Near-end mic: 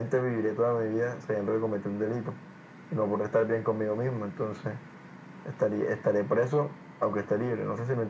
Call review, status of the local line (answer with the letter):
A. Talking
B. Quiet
B